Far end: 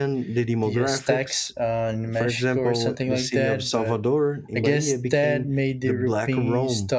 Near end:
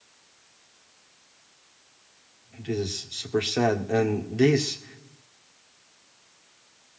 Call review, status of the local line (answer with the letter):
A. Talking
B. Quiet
A